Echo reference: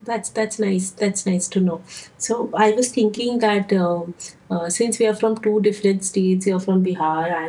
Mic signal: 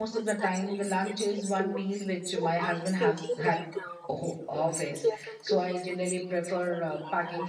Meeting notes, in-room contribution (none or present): present